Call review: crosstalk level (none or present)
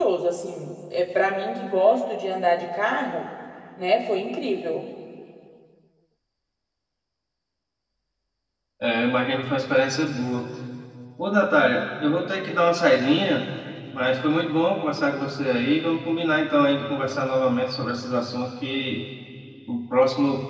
none